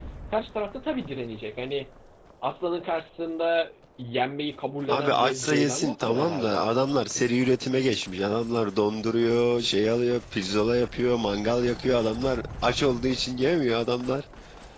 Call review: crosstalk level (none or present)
present